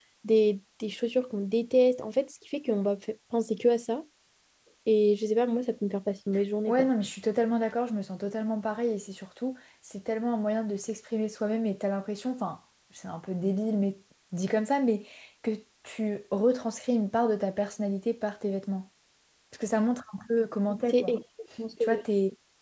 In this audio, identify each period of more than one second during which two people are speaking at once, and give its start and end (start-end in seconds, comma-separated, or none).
none